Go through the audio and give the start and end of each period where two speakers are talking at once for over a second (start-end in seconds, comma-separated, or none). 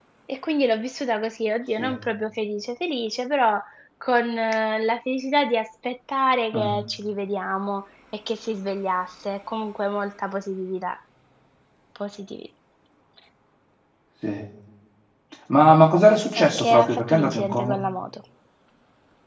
16.4-17.8